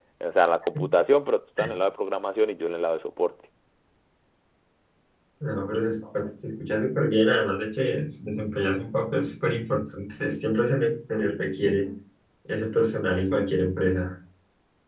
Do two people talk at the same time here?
No

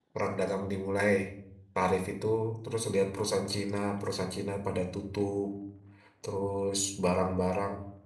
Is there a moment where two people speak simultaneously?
No

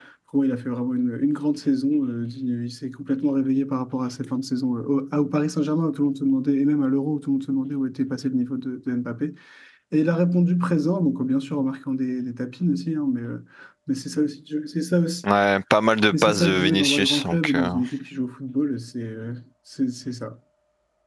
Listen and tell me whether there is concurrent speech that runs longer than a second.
Yes, from 16.1 s

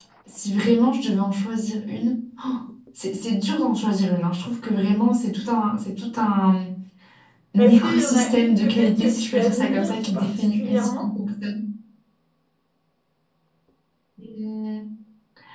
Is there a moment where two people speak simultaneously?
Yes, from 7.6 s

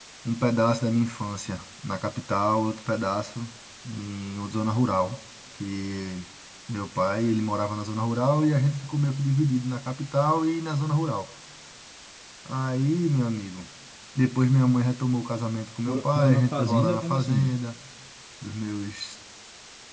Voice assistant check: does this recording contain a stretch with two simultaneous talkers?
Yes, from 15.9 s

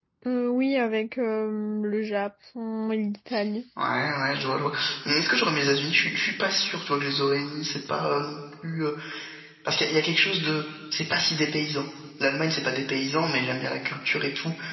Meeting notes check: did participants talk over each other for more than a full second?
No

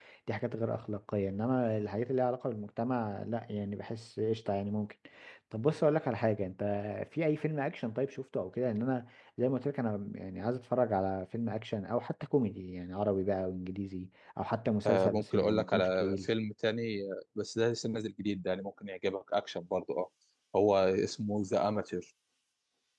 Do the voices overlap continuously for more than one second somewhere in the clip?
Yes, from 14.8 s

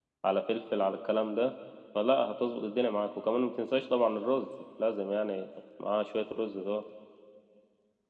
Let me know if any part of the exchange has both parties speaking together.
No

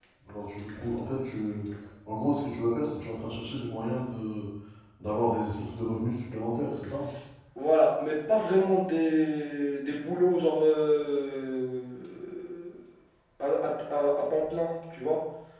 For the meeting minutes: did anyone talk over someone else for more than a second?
No

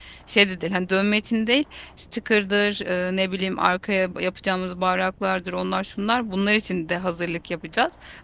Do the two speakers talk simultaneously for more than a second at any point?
No

